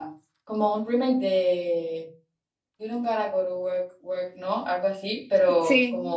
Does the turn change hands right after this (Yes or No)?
No